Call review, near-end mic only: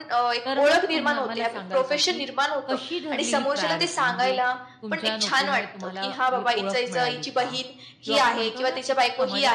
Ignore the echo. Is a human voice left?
Yes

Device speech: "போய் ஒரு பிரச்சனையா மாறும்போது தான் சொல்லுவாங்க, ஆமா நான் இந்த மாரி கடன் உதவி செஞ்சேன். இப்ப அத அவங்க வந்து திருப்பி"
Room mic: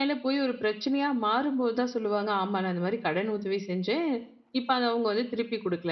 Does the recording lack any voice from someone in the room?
Yes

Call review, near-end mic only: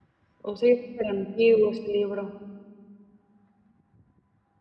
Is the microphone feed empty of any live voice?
No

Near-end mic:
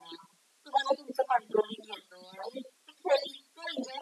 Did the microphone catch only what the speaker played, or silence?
Yes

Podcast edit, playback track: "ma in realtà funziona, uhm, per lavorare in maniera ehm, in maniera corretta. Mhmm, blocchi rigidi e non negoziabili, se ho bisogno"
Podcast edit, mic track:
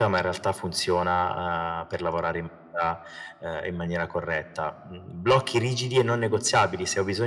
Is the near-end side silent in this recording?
Yes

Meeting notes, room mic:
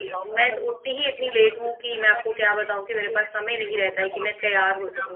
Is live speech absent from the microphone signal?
No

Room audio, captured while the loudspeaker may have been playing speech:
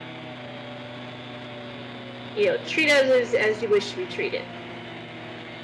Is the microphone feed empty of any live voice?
No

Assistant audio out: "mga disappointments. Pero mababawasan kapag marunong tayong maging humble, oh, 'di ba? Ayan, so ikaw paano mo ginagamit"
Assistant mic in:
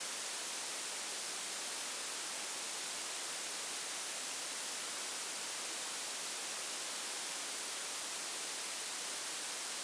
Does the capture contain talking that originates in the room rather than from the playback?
No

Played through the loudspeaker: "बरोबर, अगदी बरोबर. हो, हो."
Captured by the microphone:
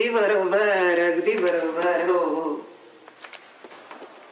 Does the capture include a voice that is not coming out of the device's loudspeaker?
No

